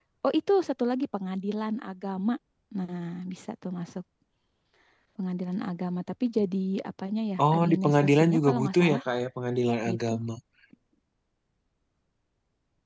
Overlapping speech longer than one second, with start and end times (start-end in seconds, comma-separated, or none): 7.5-9.0